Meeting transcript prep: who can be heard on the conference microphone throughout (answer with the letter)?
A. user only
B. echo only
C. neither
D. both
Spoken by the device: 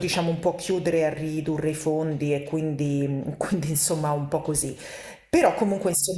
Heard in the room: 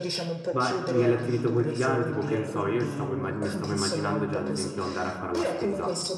D